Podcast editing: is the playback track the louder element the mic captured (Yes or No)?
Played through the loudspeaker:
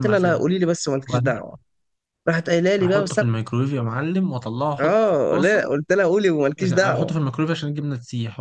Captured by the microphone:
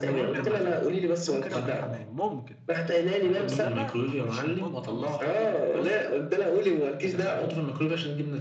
Yes